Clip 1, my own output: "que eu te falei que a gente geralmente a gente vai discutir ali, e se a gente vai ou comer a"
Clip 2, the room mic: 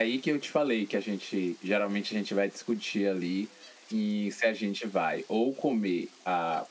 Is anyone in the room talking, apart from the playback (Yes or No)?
No